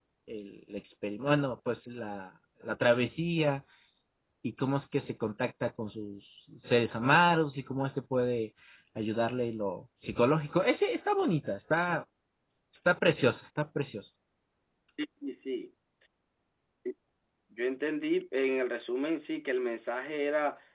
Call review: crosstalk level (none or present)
none